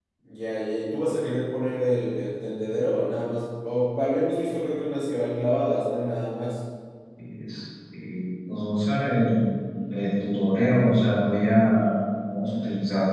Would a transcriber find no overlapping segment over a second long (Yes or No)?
Yes